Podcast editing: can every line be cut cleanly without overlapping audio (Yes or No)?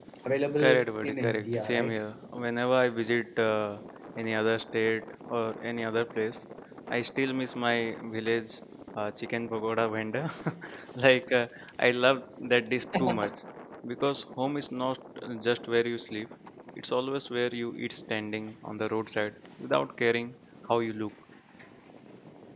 No